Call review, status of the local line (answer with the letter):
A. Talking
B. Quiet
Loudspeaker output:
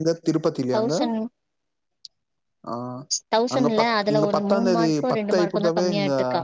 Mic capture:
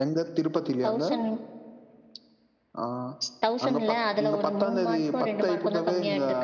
B